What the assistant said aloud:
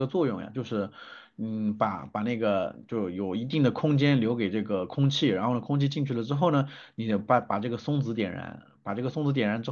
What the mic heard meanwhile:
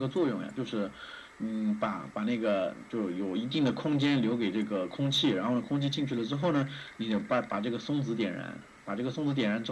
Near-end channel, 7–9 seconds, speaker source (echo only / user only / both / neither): echo only